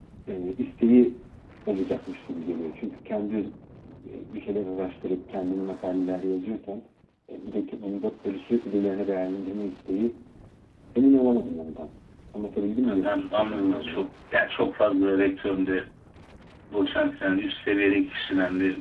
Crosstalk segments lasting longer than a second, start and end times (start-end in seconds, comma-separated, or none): 12.8-14.1